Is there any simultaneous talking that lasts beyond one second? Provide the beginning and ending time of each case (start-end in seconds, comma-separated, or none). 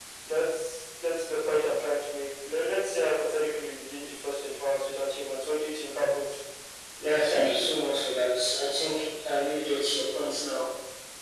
none